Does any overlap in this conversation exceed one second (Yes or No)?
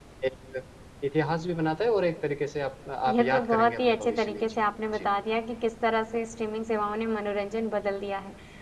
Yes